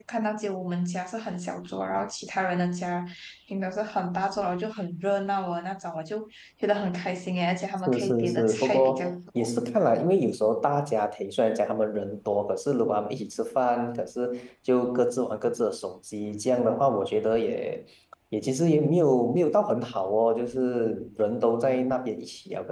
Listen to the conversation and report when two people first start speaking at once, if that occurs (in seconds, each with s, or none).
7.9 s